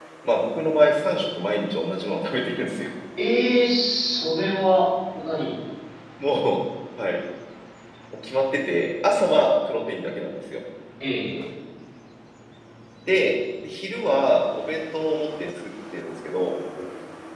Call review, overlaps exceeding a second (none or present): none